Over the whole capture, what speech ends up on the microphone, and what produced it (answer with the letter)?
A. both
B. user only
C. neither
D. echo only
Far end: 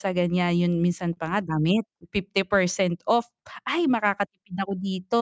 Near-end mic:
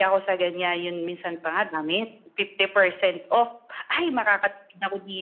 D